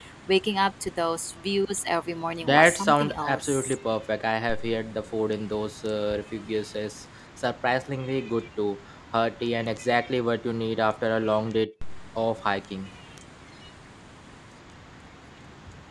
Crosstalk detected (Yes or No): Yes